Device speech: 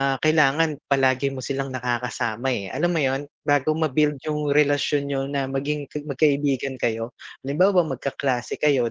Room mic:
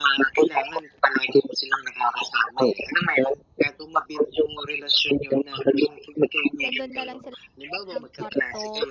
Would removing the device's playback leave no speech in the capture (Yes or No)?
No